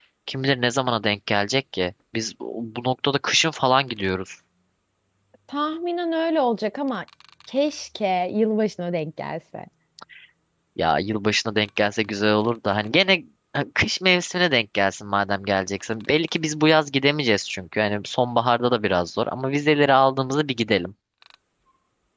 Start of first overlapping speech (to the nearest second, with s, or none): none